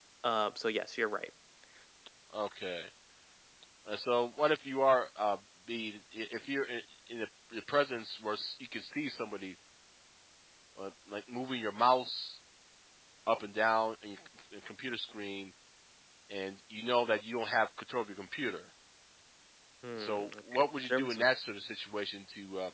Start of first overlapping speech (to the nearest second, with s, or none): 20 s